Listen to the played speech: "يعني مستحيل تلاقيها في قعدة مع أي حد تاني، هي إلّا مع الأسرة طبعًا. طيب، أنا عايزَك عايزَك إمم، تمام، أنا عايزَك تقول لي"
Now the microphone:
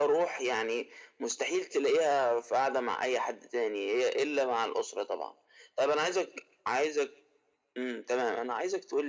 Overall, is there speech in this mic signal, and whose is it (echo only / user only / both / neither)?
echo only